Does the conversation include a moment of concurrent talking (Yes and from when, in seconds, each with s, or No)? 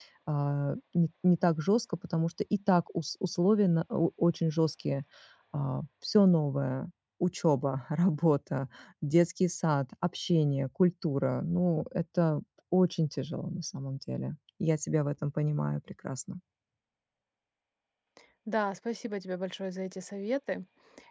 No